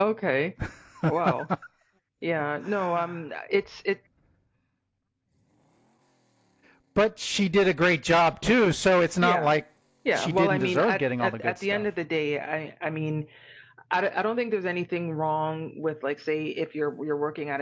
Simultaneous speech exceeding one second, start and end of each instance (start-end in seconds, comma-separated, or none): 10.2-11.8